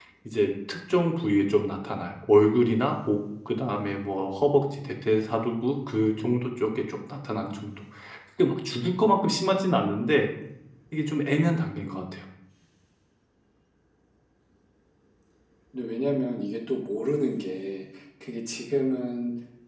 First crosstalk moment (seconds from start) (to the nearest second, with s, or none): none